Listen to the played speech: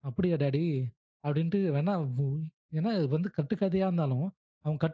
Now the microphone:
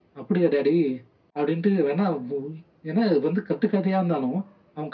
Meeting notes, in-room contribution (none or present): none